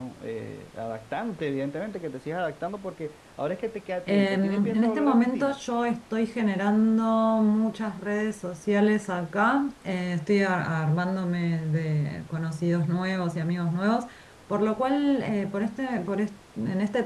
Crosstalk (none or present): present